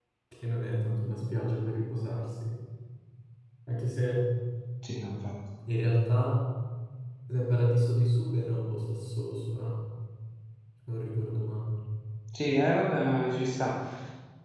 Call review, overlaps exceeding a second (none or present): none